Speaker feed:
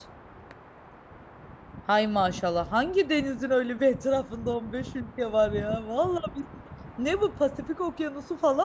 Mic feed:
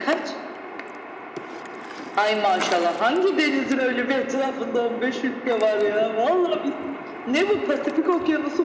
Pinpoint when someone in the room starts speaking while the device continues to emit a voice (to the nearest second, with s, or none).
none